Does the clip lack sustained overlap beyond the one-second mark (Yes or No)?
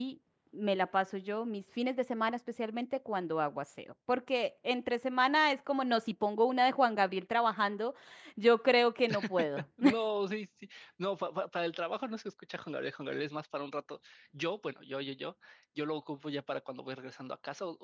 Yes